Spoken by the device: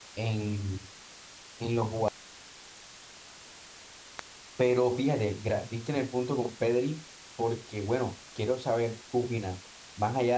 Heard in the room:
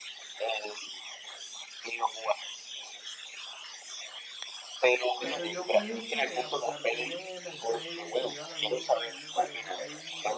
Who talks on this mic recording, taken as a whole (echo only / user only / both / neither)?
both